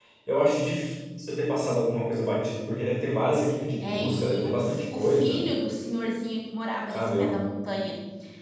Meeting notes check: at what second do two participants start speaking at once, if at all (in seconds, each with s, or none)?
3.8 s